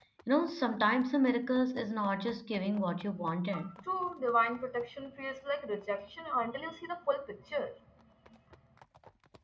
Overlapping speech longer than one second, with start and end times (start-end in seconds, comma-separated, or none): none